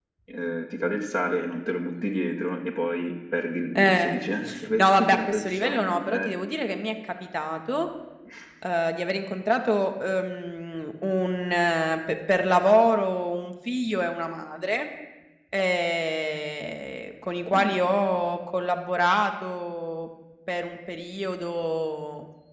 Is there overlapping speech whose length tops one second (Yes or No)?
Yes